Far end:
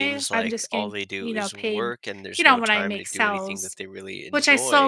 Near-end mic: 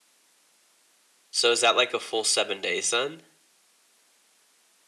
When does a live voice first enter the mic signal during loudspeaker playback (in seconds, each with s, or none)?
1.3 s